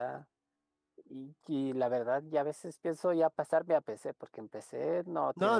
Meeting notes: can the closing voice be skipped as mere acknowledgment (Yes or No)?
No